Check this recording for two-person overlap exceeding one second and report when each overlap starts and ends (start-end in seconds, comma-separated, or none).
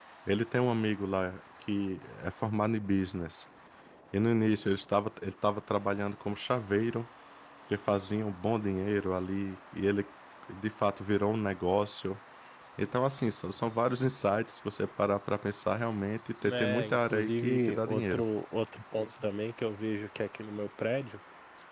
16.4-18.2